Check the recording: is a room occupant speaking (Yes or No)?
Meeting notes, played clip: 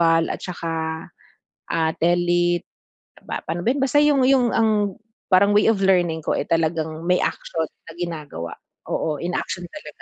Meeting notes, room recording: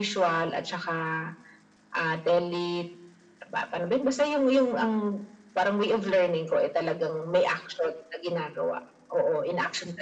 No